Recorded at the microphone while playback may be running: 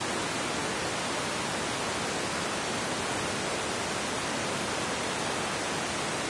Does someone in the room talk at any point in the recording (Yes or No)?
No